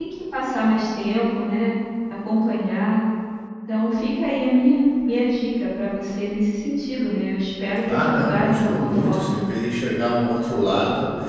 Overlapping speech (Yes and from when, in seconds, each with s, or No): Yes, from 7.8 s